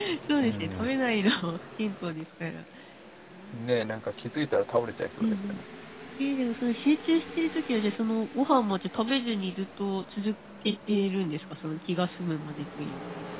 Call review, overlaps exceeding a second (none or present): none